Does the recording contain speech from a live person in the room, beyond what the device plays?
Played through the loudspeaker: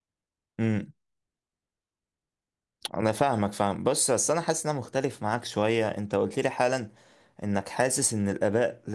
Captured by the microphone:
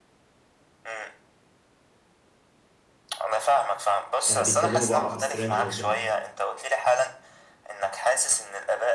Yes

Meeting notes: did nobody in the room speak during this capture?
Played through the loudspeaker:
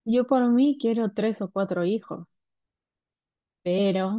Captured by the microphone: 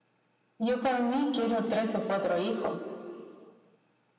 Yes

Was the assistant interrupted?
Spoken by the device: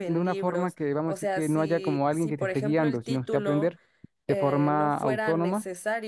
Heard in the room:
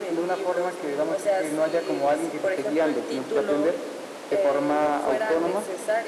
No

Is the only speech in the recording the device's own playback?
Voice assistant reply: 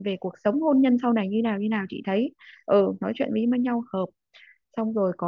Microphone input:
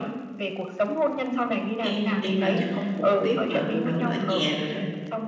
No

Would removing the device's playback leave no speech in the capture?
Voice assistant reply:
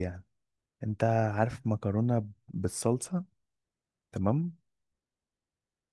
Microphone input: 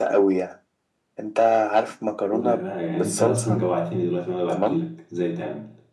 No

